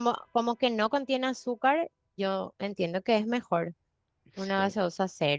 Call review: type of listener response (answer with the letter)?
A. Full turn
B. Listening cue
B